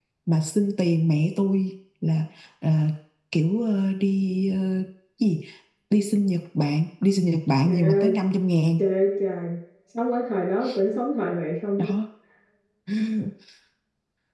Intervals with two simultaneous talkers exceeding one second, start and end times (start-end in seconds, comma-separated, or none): none